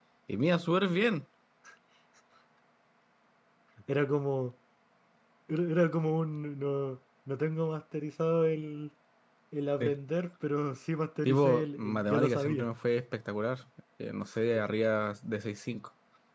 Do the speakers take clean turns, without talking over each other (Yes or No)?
No